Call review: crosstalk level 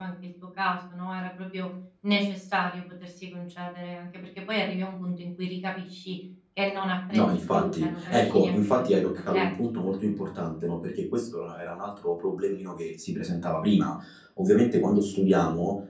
present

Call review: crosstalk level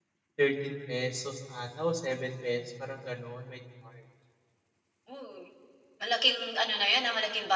none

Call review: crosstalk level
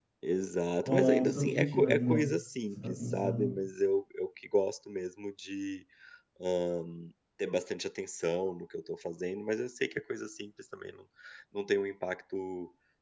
present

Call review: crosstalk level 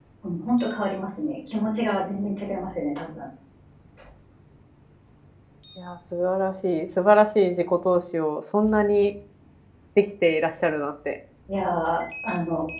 none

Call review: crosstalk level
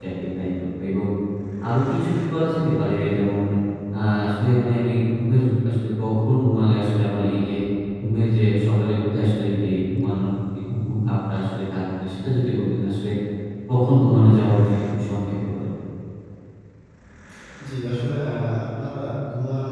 none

